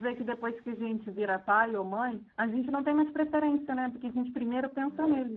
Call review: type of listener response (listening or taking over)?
listening